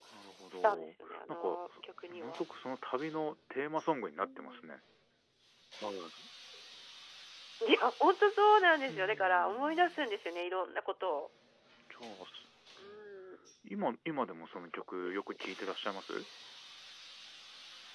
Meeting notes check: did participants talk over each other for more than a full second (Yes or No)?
Yes